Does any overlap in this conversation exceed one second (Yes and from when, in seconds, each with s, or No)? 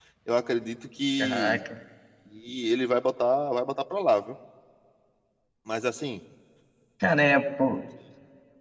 No